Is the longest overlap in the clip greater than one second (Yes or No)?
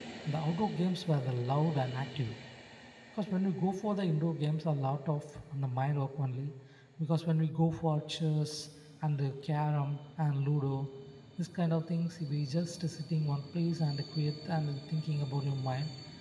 No